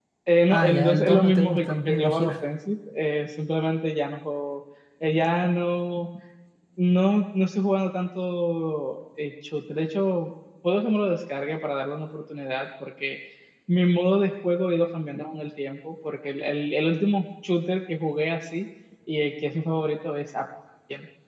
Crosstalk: present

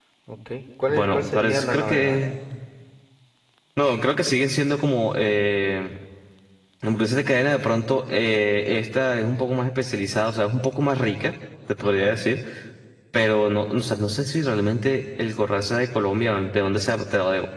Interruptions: present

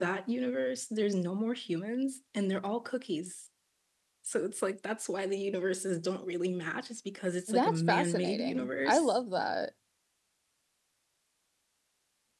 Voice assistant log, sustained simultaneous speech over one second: present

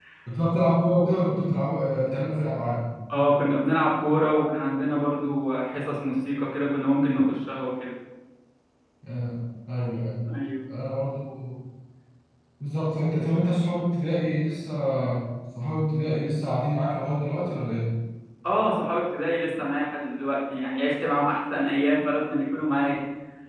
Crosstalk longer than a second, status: none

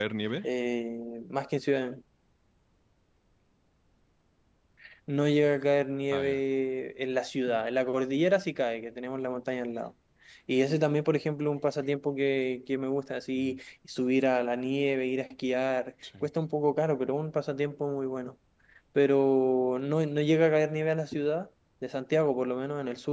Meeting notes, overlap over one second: none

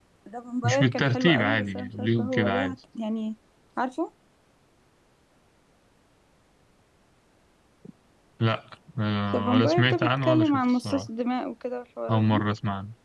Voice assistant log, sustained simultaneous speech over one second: present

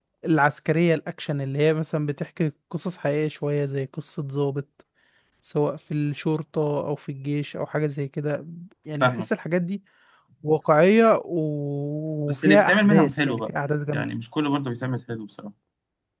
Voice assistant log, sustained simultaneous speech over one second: present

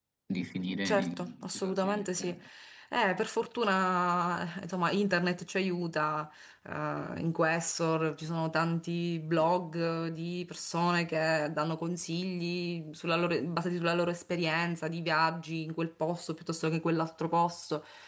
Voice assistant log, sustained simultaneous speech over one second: present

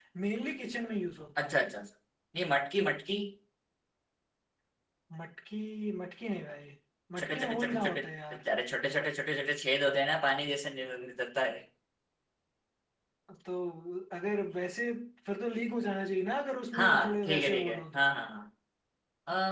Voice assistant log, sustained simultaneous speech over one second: present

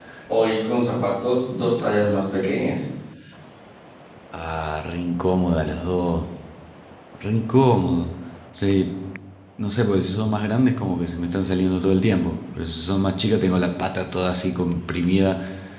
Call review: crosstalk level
none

